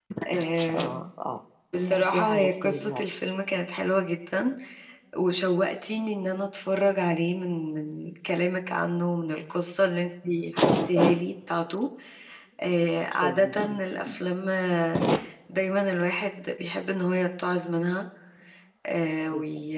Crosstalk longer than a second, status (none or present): present